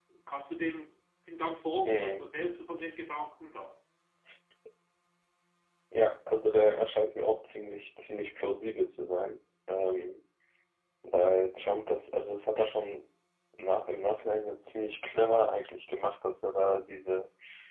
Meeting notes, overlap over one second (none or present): none